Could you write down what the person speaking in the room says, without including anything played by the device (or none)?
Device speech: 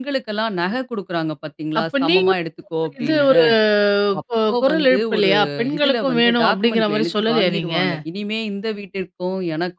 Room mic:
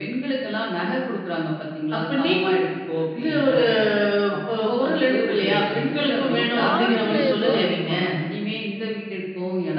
ஐயோ! பாருங்களேன் இது.